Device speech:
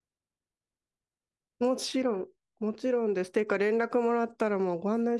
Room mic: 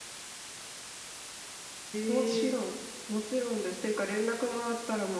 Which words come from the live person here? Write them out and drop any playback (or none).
えー、